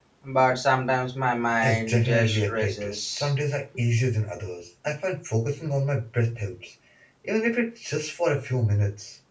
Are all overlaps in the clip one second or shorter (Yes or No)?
No